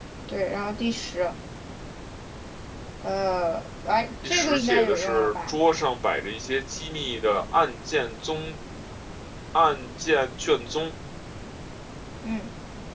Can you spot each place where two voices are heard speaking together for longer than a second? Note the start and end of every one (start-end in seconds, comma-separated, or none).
4.2-5.6